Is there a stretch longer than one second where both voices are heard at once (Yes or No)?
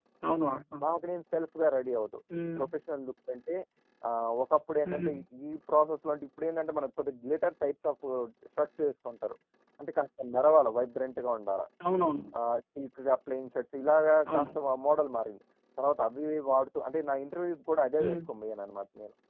No